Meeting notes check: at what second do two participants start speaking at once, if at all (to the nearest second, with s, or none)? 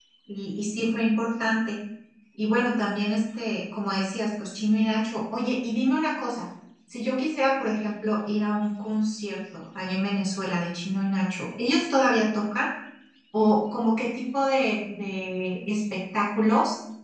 none